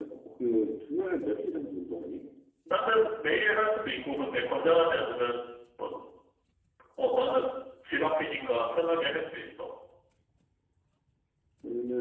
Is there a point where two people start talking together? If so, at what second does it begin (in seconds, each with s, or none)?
none